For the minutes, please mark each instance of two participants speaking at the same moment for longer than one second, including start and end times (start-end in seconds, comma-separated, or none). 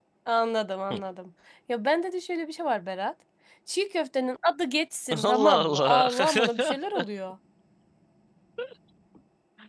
5.2-6.8